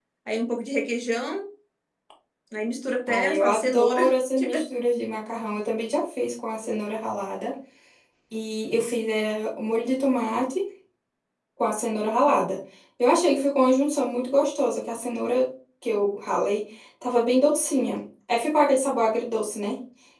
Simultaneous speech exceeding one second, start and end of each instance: 3.1-4.6

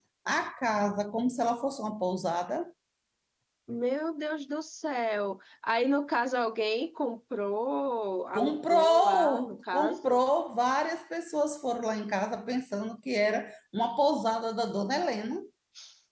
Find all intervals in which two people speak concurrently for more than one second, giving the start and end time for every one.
8.3-10.2

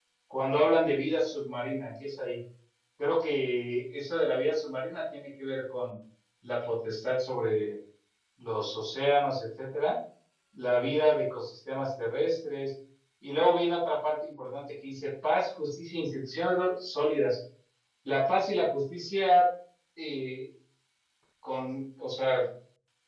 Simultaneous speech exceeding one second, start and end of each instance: none

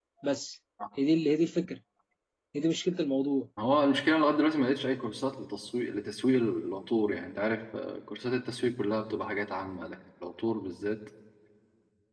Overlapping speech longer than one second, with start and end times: none

